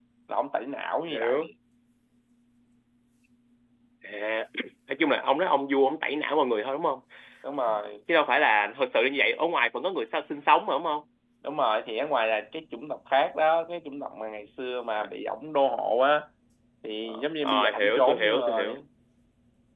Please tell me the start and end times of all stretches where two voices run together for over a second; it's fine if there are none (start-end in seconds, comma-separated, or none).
17.0-18.8